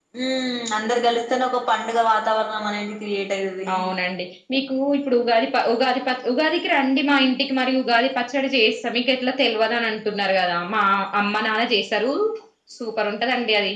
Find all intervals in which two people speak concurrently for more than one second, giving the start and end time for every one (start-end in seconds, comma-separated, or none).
none